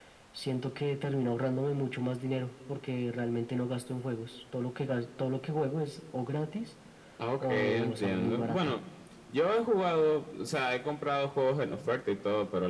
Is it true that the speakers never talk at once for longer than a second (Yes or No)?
No